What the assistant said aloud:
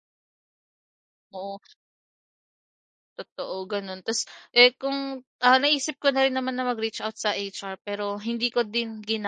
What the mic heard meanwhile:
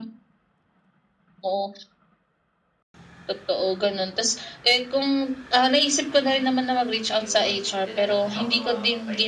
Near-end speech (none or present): present